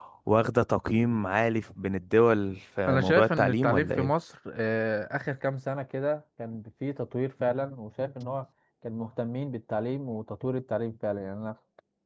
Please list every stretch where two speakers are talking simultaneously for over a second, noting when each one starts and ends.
2.9-4.1

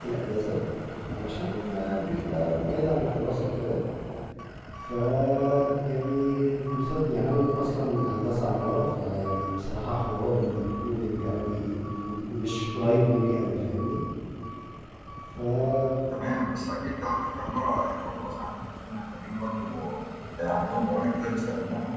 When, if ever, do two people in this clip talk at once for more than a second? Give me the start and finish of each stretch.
none

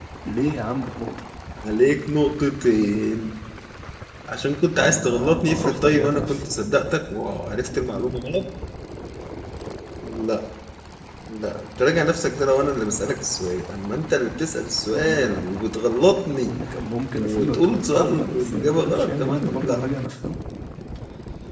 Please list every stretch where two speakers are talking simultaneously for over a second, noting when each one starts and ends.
4.8-6.4, 17.1-19.8

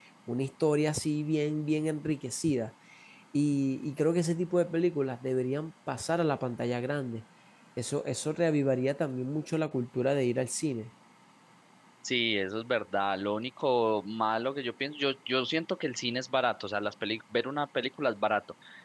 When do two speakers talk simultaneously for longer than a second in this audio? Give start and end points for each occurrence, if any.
none

